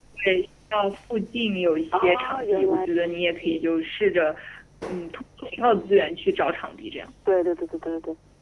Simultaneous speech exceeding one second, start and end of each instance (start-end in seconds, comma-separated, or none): 1.9-3.7